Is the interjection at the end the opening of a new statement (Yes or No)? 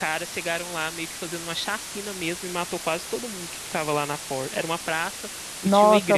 Yes